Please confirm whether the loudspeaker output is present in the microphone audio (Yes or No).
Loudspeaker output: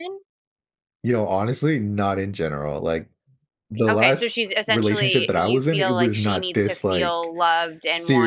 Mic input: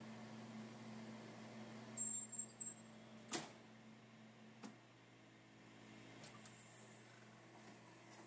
No